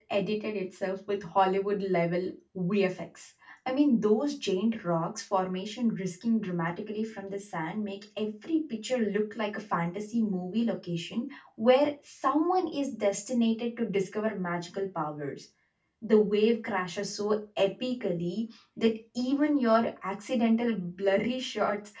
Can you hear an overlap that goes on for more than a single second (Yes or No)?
No